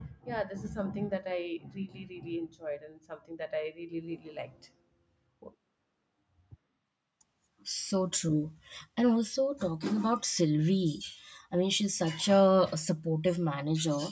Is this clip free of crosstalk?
Yes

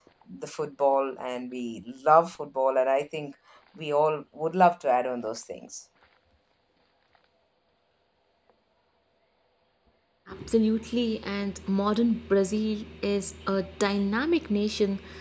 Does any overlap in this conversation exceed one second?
No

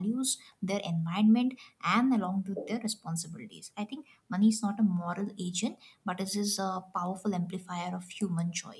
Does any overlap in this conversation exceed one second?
No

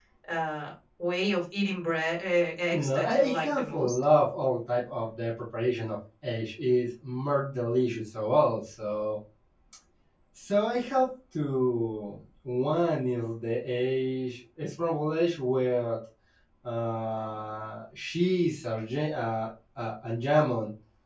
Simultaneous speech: Yes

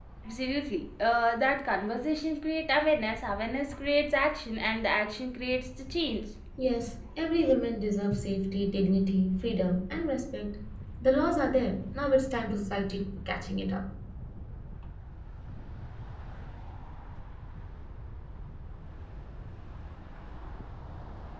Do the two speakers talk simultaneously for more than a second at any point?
No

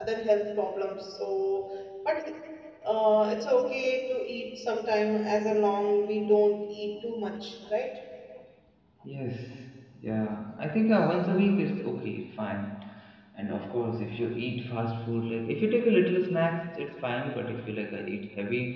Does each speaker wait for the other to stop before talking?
Yes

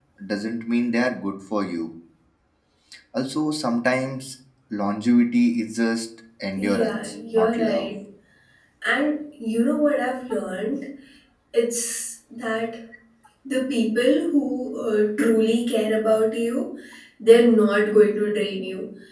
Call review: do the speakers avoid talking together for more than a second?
No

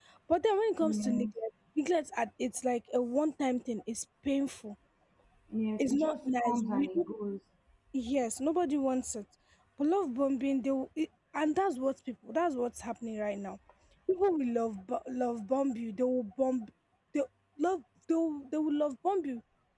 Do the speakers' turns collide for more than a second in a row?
Yes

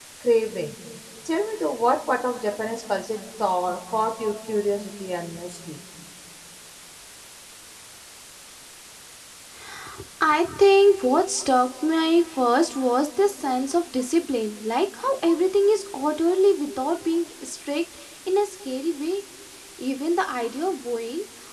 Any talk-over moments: No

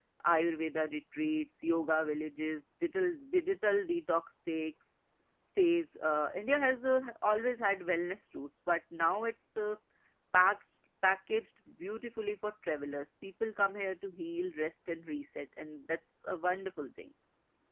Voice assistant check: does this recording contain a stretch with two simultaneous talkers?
No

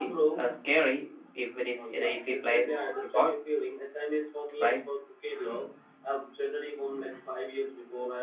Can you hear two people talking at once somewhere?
Yes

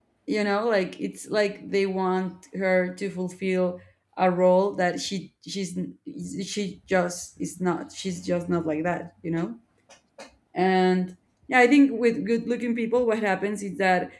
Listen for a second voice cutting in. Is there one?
No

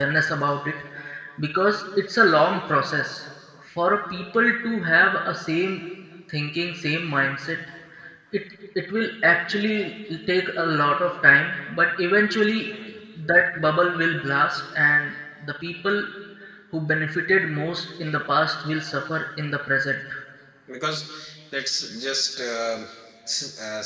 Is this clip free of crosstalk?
Yes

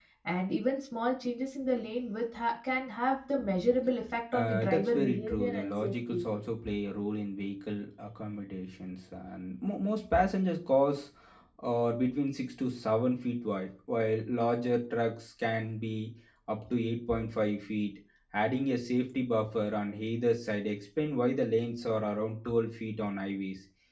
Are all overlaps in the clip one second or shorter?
No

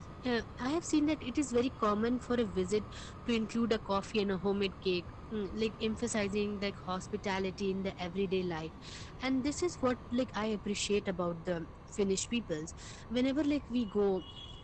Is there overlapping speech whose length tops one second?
No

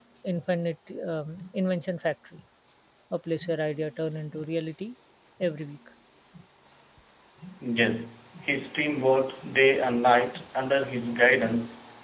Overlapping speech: No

